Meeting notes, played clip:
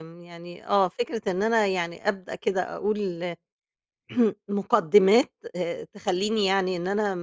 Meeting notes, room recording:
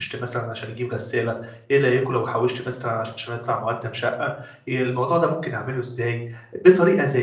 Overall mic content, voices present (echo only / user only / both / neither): user only